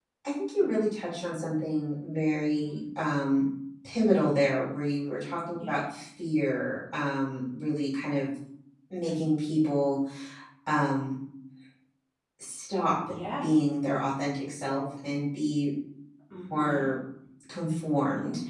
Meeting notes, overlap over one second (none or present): none